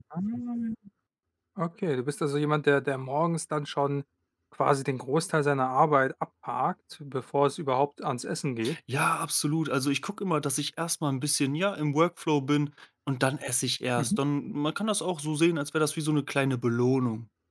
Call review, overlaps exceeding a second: none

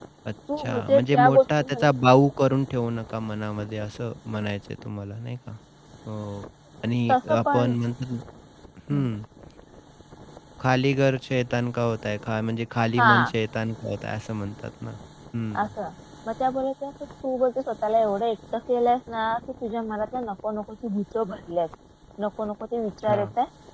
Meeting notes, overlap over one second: present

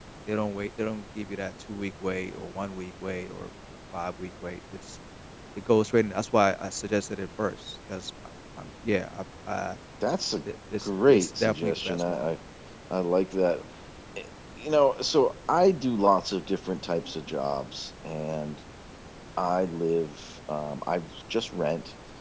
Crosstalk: present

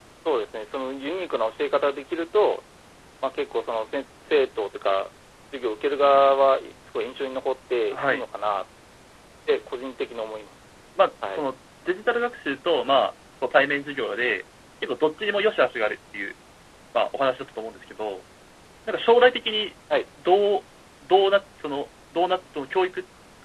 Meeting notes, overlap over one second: none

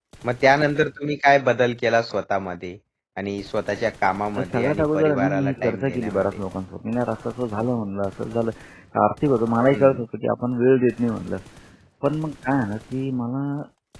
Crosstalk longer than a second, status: present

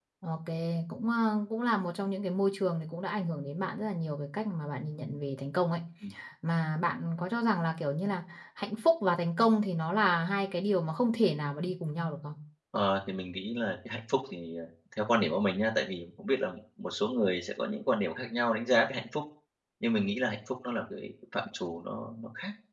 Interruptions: none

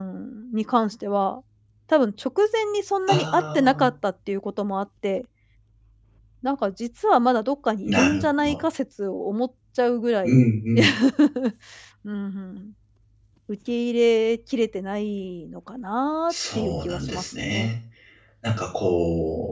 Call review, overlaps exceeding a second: present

